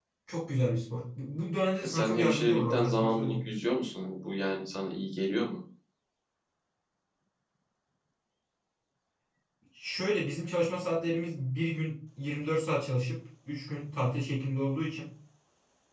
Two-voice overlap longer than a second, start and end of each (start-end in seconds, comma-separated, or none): 1.8-3.5